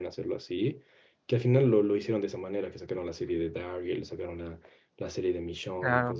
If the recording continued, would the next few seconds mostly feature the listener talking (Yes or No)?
No